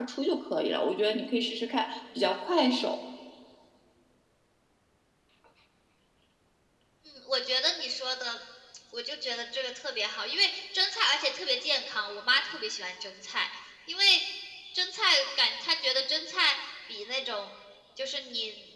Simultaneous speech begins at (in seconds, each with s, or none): none